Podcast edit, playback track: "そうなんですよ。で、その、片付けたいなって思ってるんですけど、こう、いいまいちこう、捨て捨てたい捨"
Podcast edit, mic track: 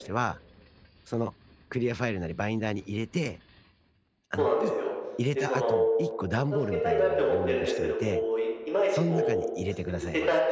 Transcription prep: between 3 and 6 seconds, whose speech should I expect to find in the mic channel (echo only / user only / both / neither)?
both